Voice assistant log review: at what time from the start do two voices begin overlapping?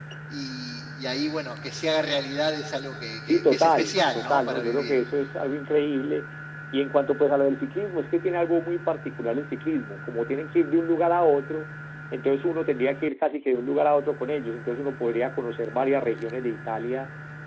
3.2 s

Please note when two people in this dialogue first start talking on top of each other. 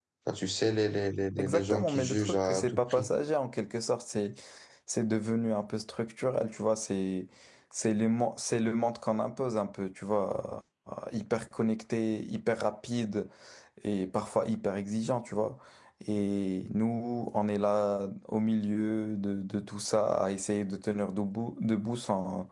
1.4 s

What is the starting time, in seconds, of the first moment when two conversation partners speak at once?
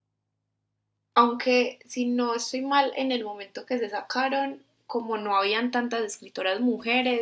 none

